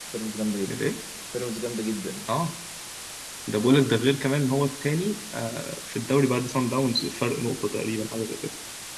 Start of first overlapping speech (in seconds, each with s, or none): none